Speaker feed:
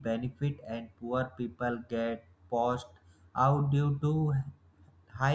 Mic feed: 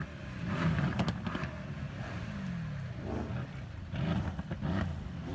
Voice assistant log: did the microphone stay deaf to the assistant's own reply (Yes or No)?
Yes